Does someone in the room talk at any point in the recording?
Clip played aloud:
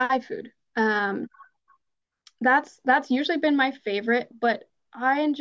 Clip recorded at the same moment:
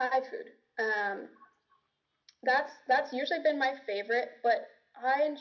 No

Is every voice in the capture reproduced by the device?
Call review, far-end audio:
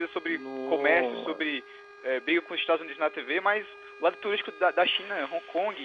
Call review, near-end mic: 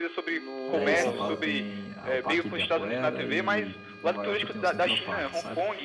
No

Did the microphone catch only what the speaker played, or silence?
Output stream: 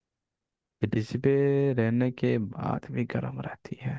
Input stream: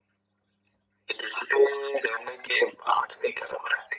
Yes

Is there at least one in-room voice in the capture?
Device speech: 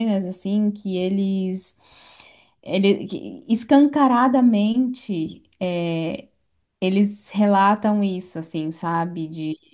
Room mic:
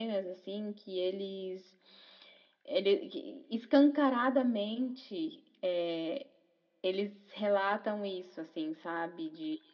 No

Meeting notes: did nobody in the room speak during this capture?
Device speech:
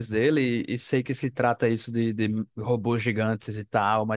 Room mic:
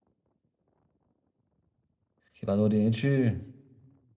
No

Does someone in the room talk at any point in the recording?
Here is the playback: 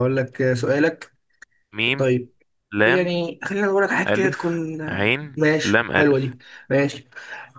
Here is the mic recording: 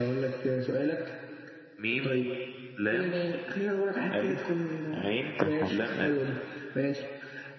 Yes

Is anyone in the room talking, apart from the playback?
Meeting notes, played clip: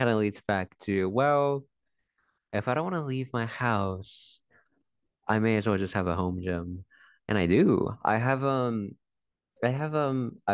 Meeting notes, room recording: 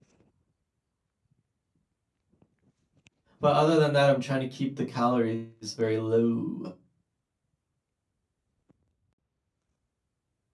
Yes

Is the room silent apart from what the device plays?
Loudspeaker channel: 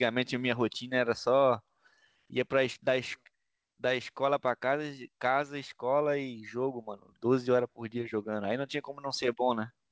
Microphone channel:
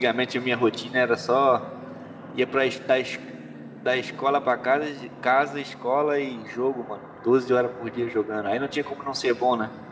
Yes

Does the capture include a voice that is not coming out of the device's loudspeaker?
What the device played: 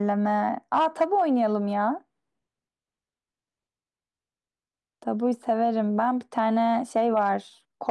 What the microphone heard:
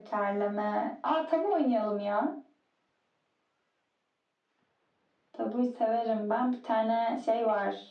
No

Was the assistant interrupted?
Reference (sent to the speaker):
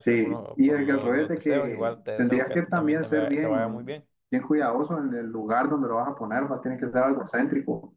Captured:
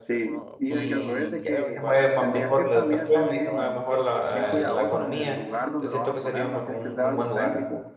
Yes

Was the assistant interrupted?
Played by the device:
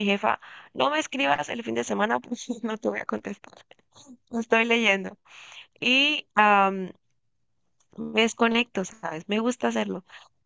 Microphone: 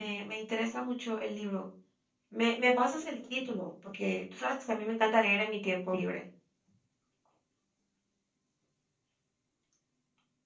Yes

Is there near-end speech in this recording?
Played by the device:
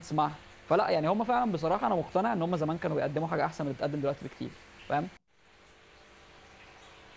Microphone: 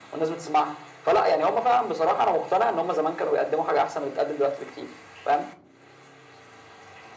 No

